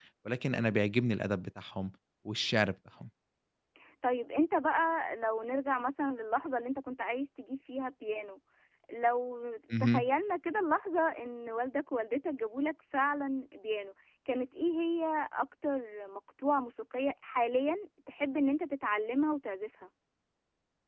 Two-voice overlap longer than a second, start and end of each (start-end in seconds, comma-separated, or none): none